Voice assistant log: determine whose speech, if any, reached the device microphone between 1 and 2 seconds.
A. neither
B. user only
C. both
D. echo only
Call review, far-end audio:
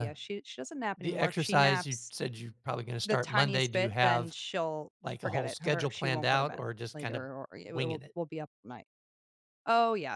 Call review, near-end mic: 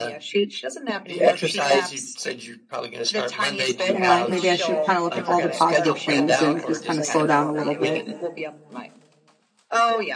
D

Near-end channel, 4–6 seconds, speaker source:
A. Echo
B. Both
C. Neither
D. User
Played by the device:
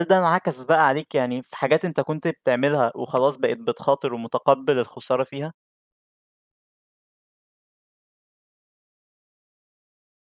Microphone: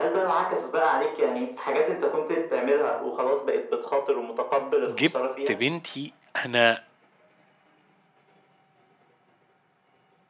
B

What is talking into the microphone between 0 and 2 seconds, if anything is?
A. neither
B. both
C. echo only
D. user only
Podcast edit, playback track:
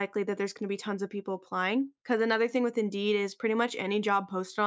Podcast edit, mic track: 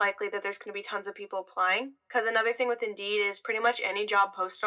C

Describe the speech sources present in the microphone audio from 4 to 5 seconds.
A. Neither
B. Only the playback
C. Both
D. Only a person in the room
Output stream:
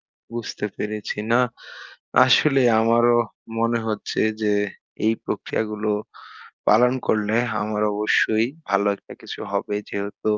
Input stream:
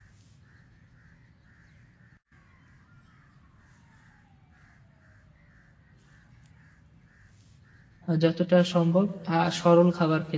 A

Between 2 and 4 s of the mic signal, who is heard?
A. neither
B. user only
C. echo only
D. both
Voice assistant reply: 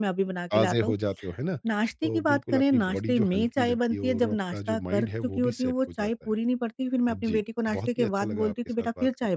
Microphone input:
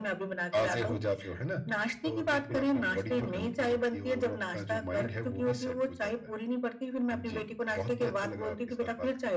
C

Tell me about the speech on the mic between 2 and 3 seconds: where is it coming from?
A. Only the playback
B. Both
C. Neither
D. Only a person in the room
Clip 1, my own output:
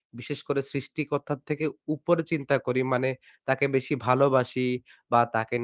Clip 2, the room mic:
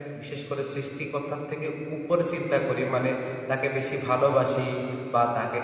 A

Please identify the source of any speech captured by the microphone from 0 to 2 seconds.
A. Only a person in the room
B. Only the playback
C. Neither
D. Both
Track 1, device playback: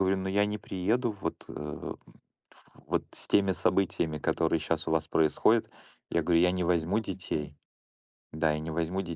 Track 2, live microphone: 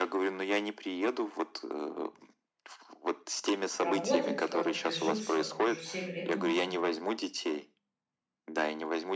B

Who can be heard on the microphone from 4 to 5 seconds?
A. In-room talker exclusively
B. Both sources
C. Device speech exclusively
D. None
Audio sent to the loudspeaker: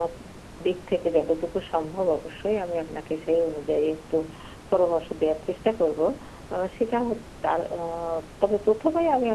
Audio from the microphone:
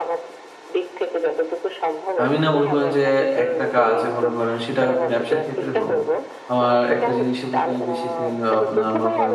B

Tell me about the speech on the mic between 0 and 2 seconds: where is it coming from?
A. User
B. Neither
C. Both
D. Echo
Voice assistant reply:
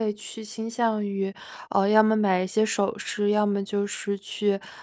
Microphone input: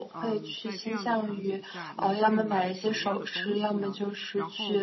C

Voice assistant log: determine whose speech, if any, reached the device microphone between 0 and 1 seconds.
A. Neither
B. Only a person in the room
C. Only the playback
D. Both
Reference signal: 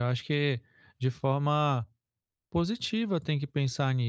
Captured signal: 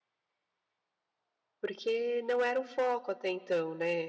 A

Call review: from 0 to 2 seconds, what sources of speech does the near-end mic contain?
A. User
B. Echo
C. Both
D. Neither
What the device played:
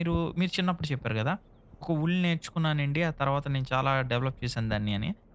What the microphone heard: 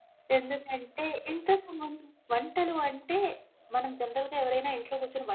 A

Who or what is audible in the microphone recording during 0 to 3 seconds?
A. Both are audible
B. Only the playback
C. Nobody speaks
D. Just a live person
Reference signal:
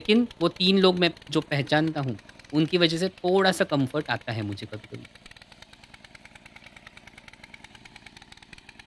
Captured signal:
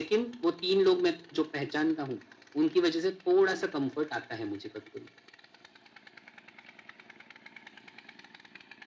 B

